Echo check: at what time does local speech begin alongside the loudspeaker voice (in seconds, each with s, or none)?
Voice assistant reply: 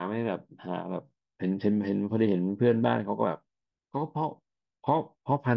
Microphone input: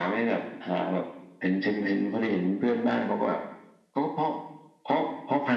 none